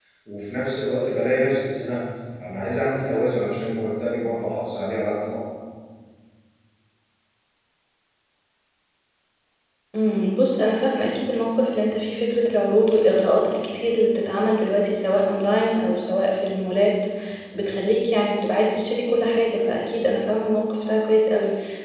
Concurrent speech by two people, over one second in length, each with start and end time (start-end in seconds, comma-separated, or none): none